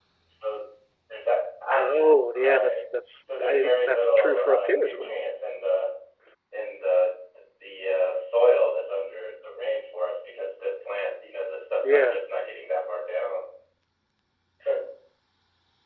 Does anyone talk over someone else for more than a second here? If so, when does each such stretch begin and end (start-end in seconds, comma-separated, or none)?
3.4-5.2